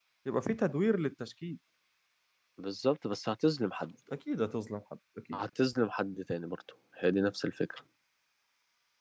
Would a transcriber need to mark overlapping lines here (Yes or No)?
No